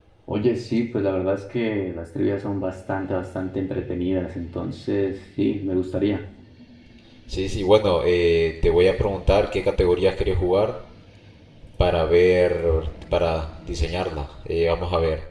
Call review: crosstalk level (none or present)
none